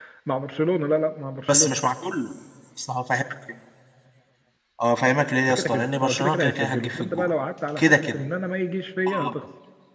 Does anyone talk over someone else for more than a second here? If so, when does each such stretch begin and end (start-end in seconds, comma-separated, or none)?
5.5-7.3